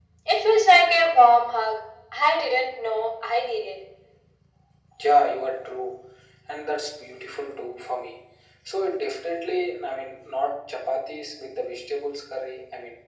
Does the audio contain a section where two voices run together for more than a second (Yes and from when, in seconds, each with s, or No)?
No